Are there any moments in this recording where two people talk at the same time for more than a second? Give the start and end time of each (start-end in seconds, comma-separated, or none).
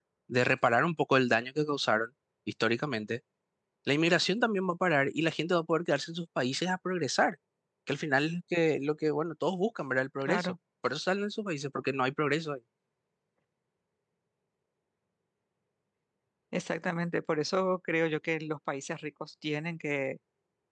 none